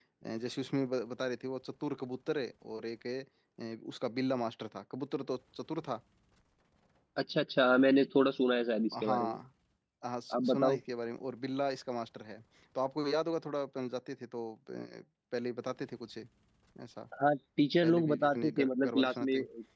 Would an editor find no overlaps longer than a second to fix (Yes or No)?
No